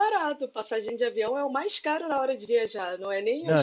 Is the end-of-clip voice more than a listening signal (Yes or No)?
No